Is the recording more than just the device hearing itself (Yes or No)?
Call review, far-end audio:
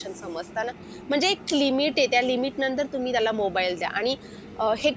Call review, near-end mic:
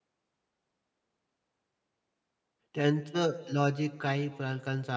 Yes